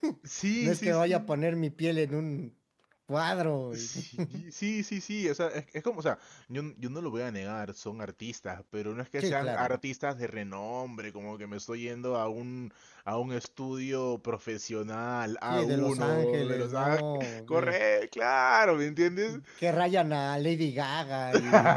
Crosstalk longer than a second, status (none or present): present